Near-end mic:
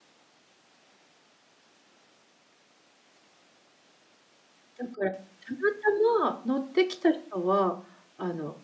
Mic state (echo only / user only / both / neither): user only